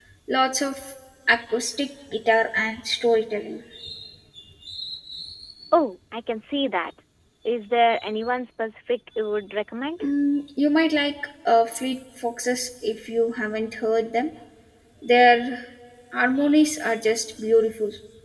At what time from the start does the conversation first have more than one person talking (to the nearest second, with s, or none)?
none